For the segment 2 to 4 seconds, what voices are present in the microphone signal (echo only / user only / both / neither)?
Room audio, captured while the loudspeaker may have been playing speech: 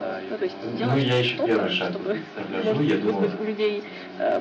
both